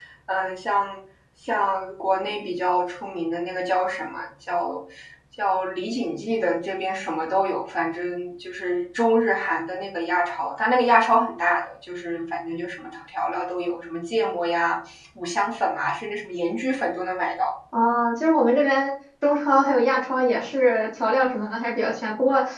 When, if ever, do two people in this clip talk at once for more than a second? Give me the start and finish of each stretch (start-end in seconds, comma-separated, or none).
none